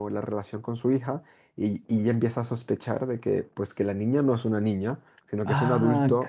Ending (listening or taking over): taking over